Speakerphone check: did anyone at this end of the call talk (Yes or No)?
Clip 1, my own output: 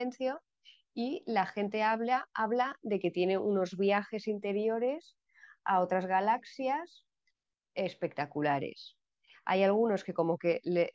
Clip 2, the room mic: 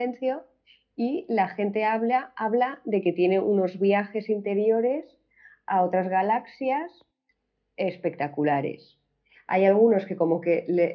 No